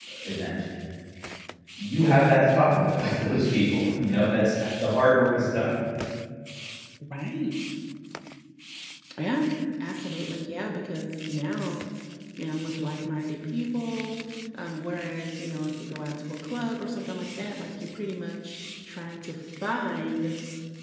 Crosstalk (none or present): none